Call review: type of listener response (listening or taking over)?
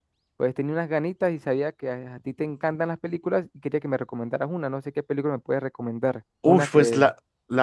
taking over